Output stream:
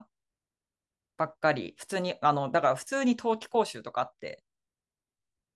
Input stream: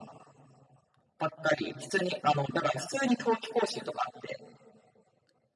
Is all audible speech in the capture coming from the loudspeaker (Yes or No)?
Yes